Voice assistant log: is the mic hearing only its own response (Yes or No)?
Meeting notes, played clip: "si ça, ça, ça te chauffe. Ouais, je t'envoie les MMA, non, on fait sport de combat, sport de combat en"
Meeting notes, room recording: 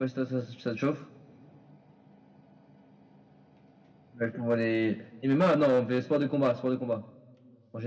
Yes